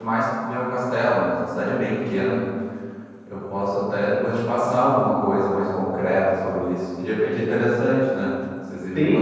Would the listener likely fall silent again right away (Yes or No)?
No